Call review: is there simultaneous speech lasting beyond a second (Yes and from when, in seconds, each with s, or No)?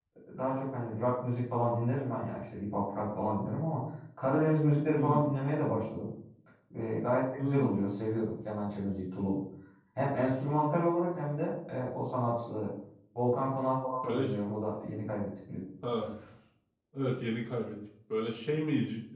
No